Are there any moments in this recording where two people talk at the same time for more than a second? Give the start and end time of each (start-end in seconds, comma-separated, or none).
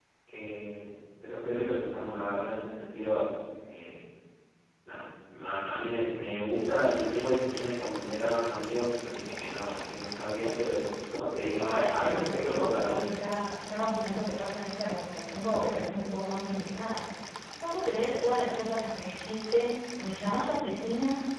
11.6-13.0